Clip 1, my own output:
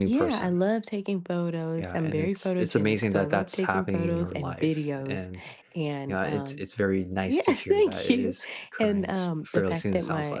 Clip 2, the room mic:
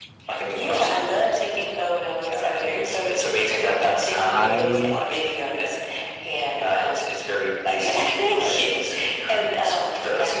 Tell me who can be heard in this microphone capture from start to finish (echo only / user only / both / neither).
both